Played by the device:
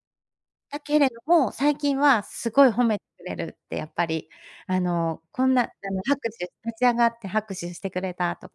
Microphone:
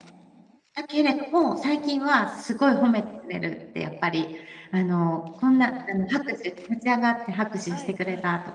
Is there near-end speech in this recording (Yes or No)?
Yes